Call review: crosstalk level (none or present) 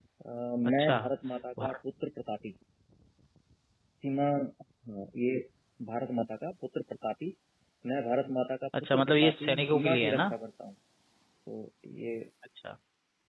present